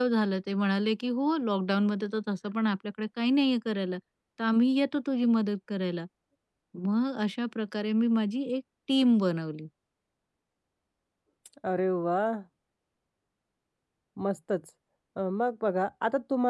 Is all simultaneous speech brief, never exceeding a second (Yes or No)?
Yes